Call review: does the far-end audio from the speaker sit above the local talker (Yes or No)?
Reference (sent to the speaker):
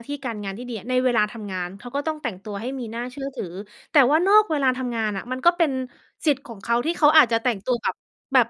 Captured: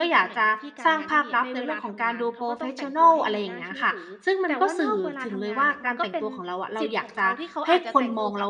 No